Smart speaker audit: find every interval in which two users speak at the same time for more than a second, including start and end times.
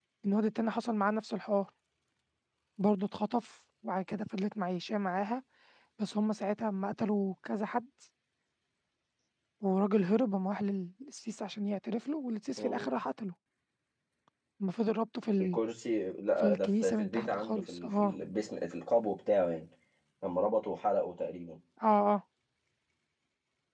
16.4-18.1

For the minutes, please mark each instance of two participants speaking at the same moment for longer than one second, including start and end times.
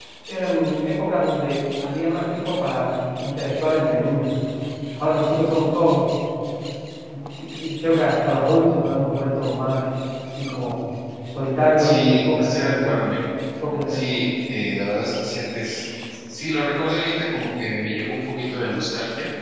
11.8-13.0

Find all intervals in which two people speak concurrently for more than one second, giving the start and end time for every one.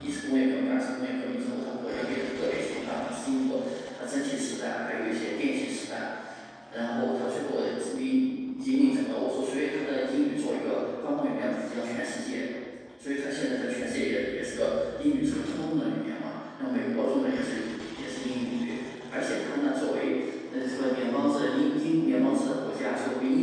none

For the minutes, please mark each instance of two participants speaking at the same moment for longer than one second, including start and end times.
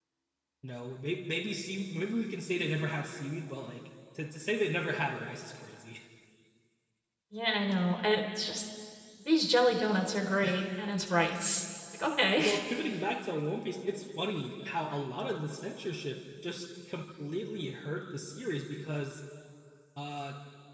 none

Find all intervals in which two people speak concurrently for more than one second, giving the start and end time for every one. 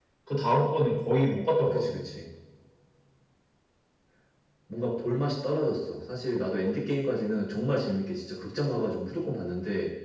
none

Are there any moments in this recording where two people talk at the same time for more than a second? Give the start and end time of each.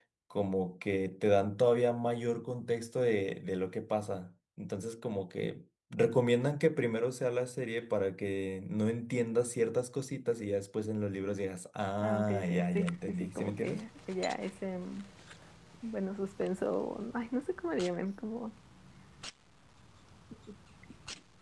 12.0-13.8

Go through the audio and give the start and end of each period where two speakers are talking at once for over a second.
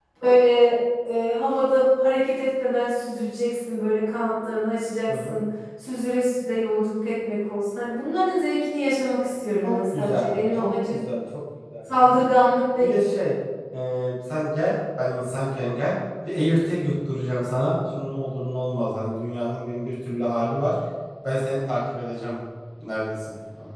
9.6-10.9

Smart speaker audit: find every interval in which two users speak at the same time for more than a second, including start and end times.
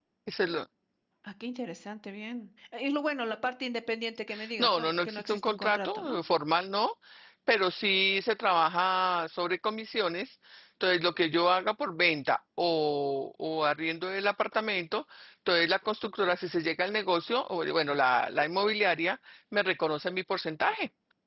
4.6-6.2

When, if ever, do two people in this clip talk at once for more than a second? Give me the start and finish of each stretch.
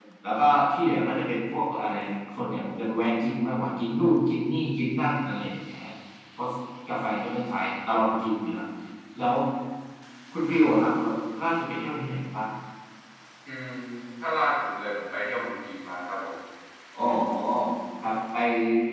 none

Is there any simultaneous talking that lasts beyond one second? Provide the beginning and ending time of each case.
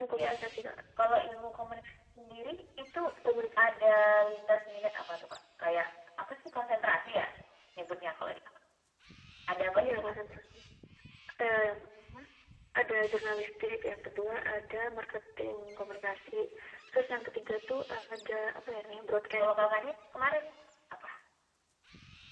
none

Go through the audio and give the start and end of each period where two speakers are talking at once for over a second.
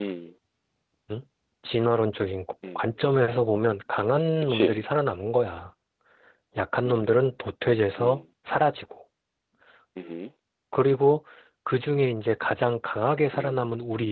none

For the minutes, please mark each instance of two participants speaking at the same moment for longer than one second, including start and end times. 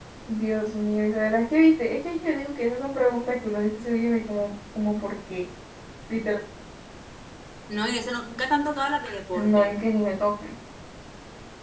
none

